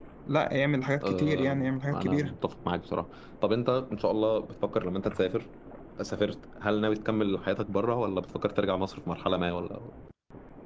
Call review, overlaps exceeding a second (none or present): present